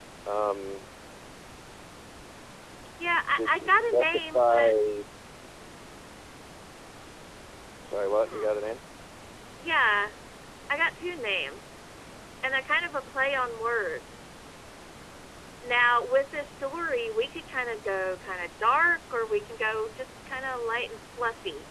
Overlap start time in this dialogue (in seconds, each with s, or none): 3.4 s